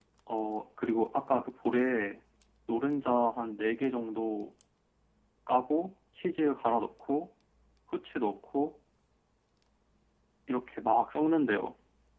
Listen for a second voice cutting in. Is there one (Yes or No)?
No